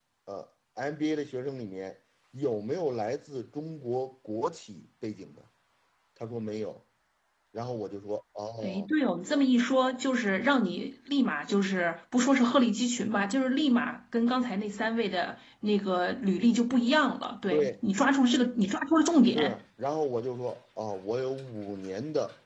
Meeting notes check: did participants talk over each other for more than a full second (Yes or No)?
No